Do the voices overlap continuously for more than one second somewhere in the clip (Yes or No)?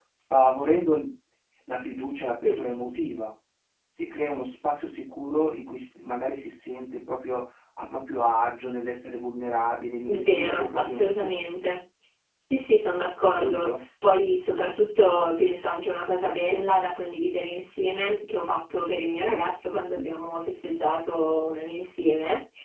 Yes